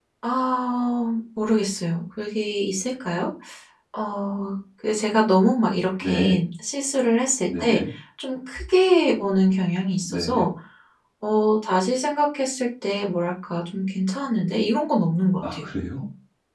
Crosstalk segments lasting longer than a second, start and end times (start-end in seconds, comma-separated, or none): none